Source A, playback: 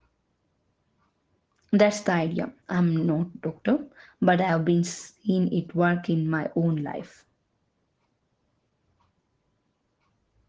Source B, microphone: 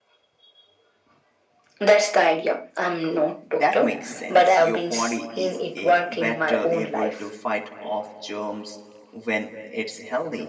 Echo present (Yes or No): Yes